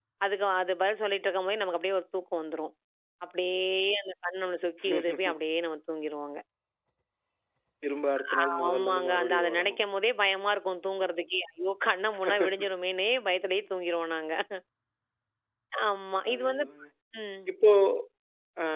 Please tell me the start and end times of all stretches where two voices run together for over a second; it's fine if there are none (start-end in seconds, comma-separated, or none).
8.4-9.8